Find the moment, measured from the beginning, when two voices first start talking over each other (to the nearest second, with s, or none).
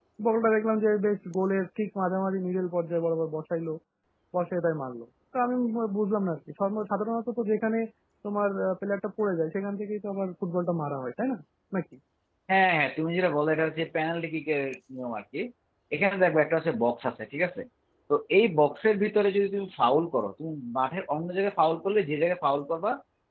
none